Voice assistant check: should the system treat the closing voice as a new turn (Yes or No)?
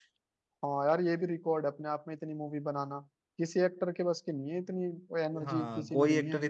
Yes